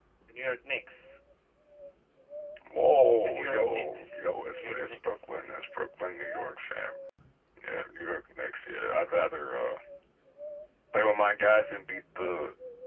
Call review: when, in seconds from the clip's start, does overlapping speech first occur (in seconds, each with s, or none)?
3.2 s